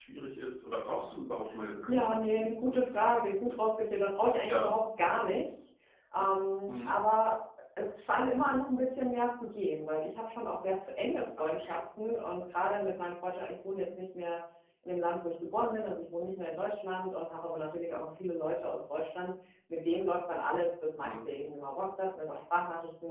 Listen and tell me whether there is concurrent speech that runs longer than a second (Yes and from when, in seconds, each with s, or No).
Yes, from 1.9 s